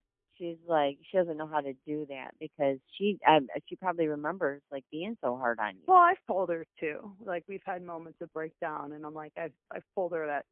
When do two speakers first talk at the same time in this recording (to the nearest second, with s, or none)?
none